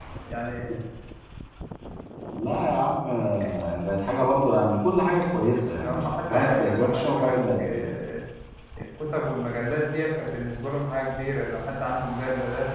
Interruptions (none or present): present